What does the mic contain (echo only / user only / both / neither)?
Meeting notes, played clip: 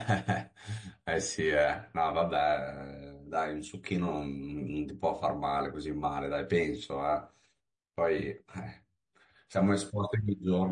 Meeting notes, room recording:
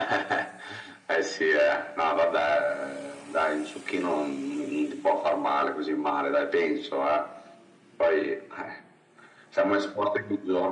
echo only